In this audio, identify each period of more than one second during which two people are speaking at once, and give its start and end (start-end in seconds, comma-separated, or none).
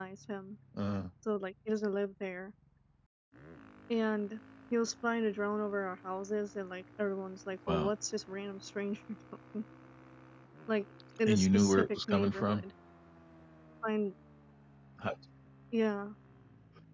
11.3-12.6